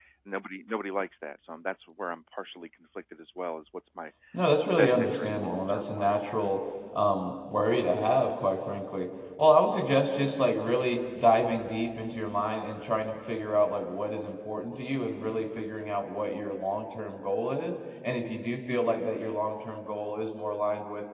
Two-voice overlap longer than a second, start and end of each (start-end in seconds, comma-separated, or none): 4.8-6.3